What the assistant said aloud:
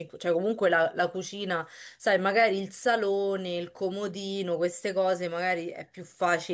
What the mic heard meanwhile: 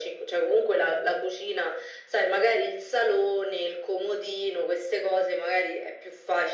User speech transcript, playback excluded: none

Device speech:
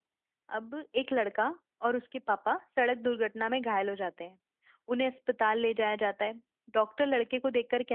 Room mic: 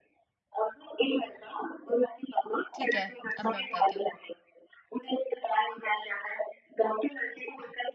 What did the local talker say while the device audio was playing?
ठीक है अब मैं बताती हूँ

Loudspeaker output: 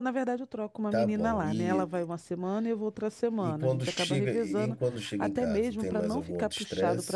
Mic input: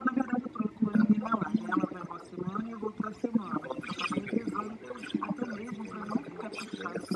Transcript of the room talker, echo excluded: none

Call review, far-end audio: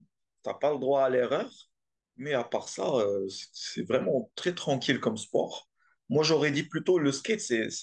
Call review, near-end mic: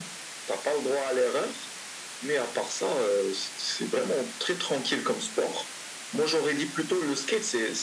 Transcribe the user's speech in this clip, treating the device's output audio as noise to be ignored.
none

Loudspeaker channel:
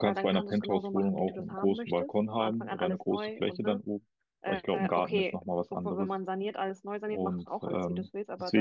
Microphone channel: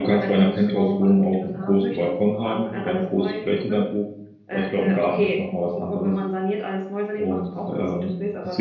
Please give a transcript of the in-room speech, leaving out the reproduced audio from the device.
none

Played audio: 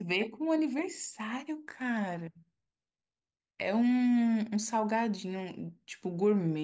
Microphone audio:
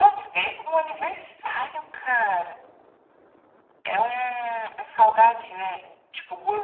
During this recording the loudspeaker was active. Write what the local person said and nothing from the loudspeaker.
none

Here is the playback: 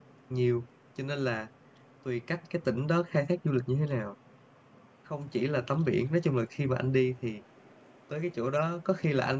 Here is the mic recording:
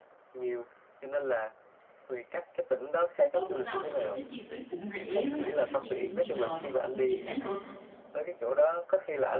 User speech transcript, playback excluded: ở Vũng Tàu thì em thấy chi phí cũng rẻ với lại cái cách di chuyển bây giờ nó cũng dễ nữa

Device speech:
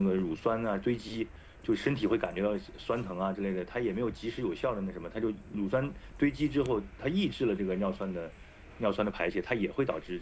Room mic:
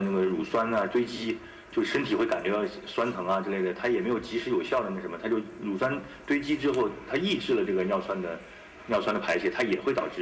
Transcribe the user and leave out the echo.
none

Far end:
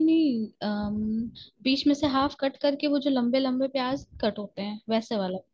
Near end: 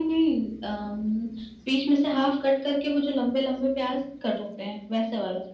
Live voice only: none

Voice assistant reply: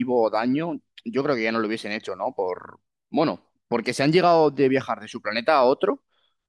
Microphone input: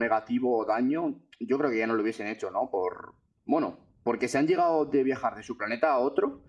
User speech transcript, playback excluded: none

